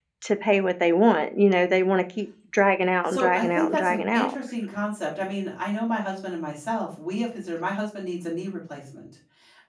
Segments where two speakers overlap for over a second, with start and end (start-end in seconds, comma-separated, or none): 3.1-4.3